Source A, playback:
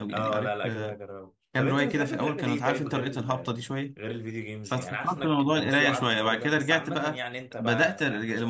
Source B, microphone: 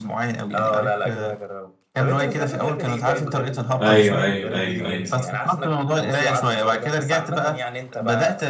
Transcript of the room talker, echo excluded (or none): ايوه ايوه ايوه ايوه